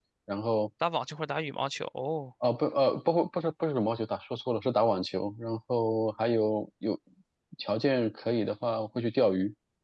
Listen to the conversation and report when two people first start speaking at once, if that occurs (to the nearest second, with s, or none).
none